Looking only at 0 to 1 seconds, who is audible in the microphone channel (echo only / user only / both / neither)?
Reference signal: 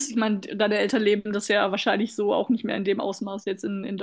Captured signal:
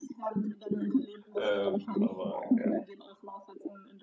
echo only